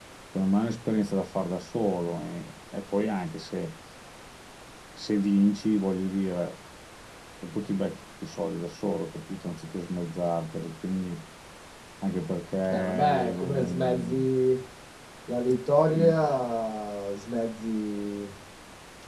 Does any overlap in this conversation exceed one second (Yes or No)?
Yes